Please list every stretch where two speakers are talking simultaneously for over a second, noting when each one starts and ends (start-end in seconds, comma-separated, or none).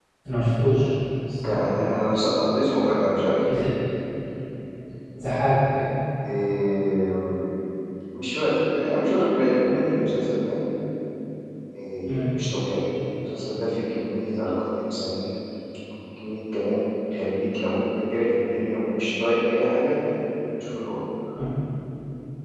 none